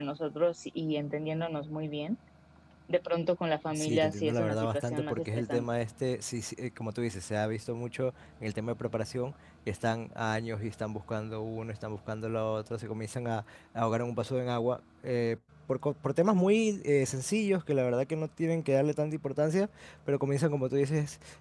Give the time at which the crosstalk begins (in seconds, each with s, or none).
3.7 s